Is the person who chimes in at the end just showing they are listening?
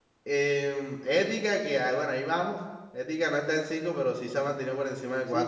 No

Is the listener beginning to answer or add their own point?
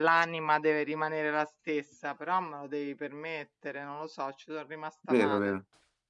Yes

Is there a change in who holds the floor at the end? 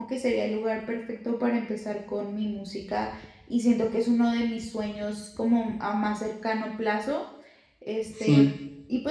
No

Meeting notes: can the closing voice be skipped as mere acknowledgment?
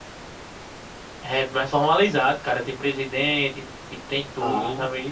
Yes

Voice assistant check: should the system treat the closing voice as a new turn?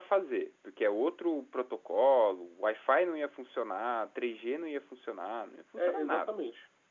Yes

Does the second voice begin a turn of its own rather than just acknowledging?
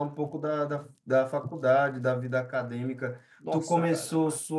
No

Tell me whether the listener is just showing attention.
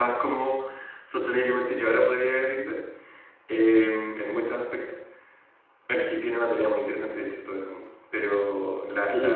No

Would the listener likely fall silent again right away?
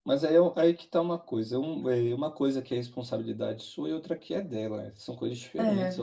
Yes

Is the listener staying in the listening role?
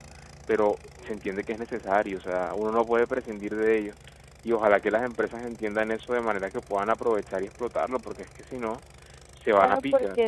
No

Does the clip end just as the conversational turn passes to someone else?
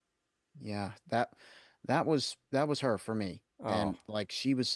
No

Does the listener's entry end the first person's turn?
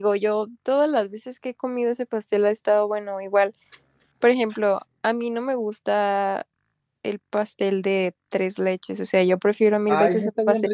Yes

